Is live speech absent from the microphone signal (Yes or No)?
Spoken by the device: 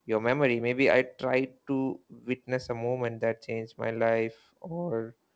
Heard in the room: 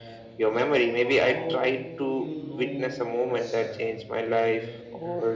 No